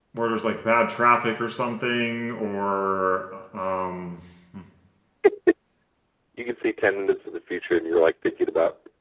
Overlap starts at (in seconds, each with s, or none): none